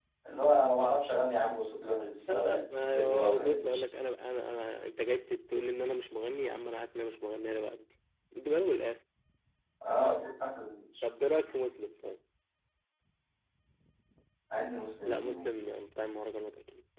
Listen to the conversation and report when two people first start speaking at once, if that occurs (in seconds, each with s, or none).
2.3 s